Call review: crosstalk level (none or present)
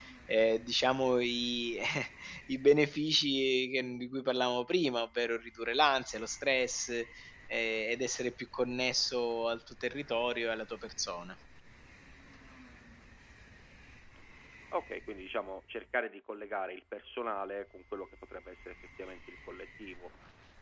none